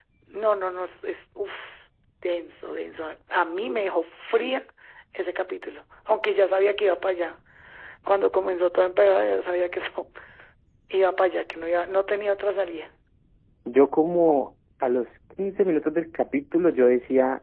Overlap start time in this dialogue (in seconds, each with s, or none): none